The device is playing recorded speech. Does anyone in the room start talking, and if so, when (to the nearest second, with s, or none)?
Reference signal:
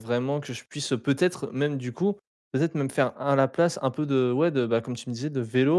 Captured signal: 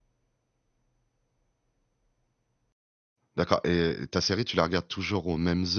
3 s